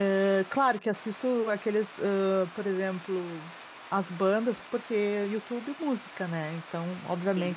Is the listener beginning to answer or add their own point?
No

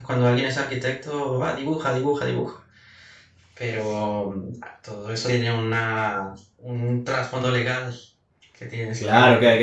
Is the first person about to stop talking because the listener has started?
Yes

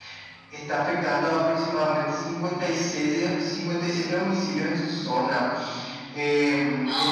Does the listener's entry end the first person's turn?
Yes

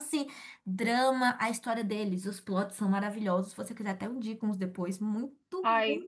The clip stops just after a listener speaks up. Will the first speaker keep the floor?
Yes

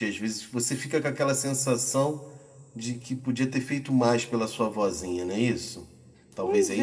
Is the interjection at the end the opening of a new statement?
Yes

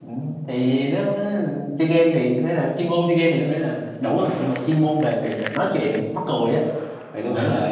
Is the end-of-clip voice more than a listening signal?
No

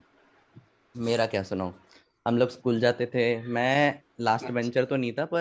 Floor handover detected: No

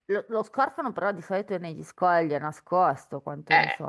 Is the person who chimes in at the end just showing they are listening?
No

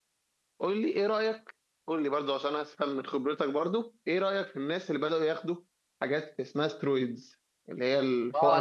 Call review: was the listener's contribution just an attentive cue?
No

